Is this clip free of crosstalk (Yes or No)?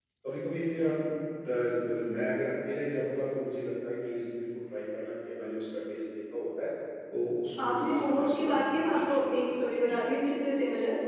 No